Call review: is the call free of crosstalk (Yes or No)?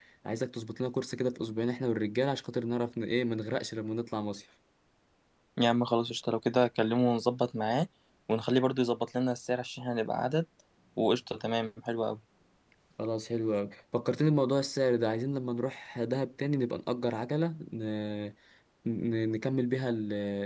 Yes